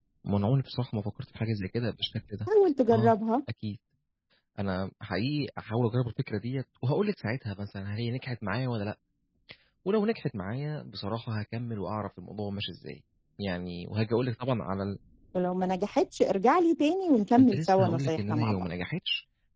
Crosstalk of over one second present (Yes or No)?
Yes